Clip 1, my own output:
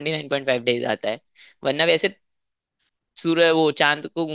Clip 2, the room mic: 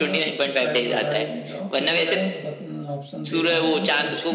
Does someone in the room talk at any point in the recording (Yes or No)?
Yes